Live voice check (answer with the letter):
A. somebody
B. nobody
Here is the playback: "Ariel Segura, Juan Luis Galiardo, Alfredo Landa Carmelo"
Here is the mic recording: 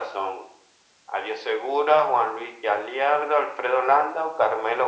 B